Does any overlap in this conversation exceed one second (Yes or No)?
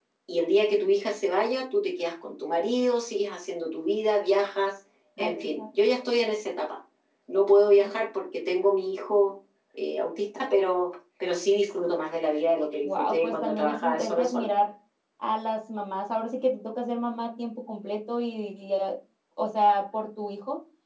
Yes